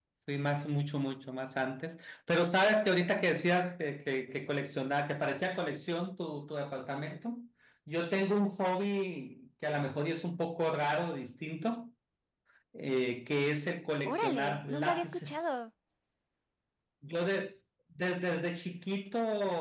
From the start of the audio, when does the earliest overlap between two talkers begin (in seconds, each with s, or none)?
14.1 s